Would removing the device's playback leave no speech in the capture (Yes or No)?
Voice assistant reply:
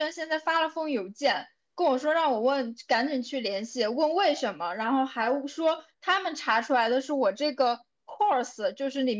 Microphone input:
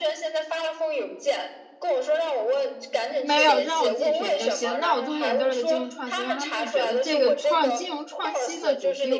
No